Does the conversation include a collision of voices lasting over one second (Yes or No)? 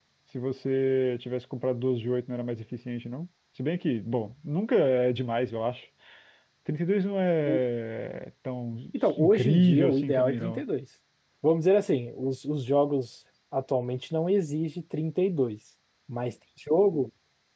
Yes